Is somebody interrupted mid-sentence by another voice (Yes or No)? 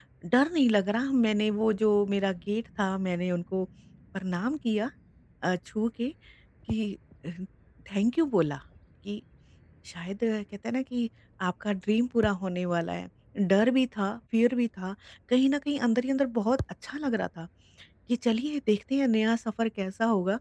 No